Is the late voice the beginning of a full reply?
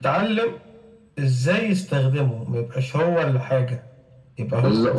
Yes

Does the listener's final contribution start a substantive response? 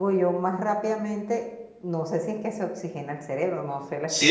Yes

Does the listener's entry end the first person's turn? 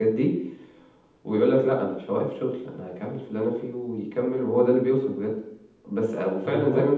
No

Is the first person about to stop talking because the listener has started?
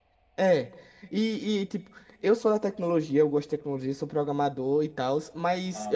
No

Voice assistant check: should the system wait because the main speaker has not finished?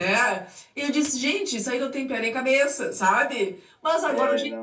Yes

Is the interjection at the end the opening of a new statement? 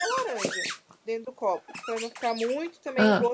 No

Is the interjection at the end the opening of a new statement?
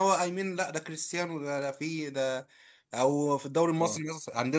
No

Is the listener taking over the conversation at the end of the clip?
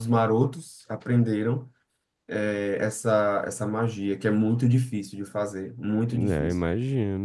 Yes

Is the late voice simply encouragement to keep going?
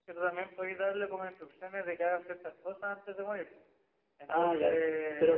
No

